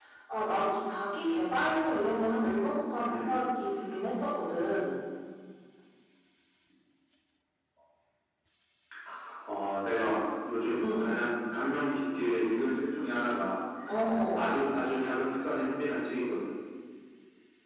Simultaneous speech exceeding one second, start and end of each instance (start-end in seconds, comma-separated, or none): none